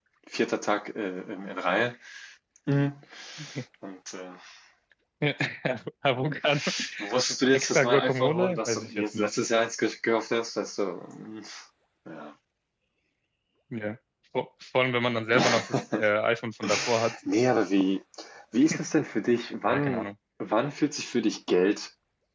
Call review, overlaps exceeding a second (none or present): present